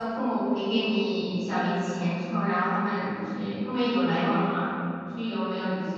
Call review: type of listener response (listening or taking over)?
taking over